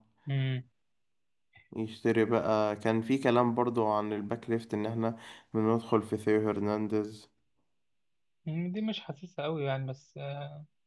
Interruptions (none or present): none